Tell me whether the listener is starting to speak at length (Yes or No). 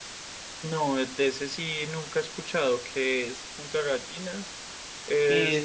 No